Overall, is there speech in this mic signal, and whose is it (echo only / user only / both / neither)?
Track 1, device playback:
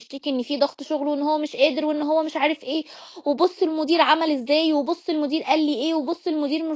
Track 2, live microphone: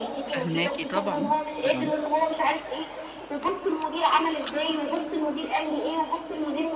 both